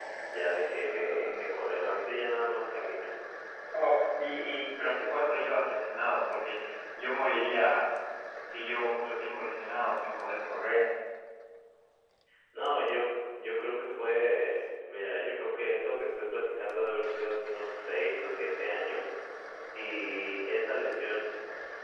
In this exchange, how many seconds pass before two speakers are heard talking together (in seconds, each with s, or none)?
none